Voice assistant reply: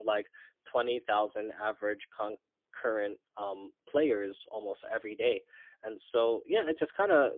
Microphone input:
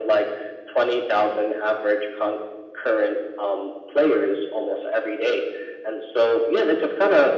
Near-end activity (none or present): none